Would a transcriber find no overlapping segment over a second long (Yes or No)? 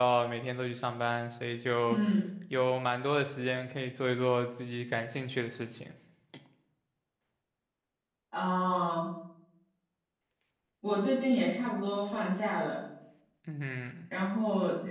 Yes